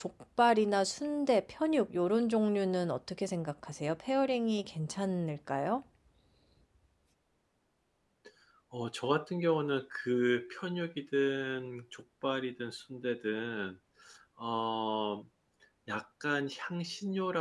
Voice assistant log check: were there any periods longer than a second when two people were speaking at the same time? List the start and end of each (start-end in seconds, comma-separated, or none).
none